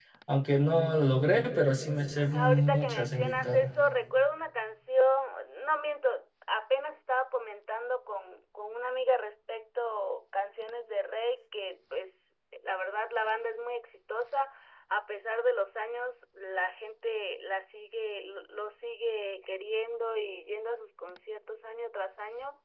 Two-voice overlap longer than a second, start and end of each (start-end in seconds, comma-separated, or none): 2.3-3.7